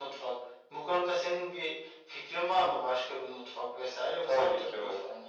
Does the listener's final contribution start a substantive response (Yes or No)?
Yes